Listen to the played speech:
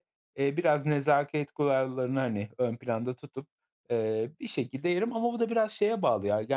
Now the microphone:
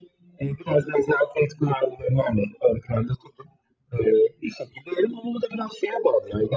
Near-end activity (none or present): none